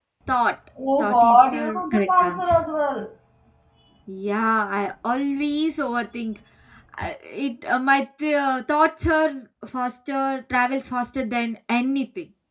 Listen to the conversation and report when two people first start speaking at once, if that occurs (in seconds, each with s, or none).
1.0 s